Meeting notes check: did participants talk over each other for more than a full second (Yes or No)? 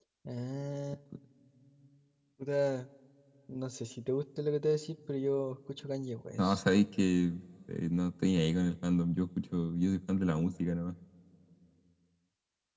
No